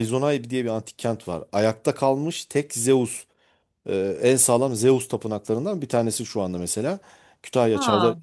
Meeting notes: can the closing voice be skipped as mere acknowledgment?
Yes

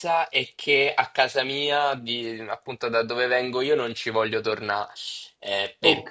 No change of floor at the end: Yes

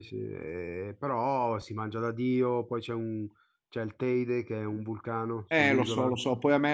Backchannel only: No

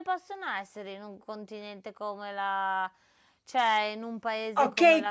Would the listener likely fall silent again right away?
No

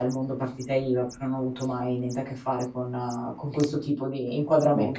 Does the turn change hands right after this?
Yes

